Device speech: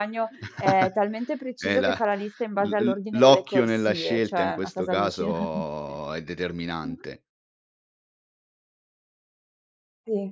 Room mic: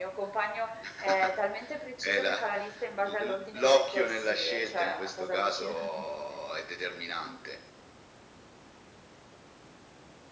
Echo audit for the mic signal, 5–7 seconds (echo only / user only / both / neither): echo only